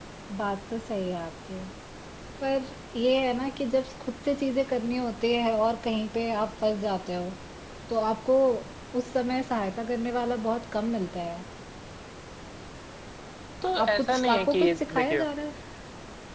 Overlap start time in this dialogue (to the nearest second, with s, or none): 14 s